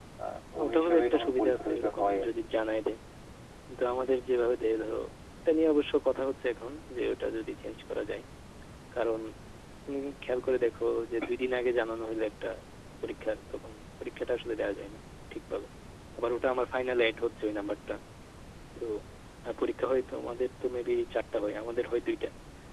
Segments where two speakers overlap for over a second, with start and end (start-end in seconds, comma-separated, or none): 0.7-2.3